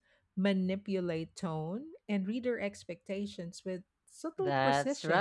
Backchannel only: No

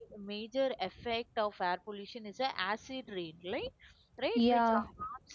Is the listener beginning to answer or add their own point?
No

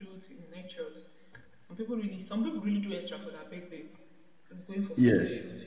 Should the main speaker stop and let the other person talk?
No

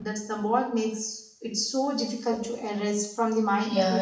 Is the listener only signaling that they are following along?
No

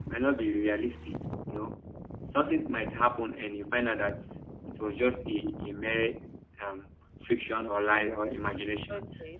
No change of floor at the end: No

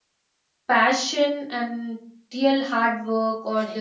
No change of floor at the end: Yes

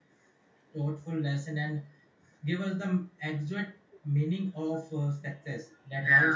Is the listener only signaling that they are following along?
No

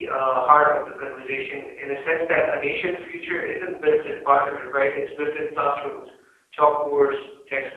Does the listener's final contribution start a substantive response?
No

